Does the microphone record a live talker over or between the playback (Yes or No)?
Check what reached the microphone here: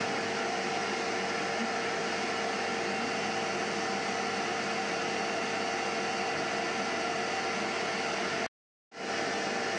No